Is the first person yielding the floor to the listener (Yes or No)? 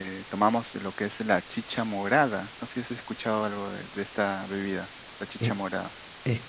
Yes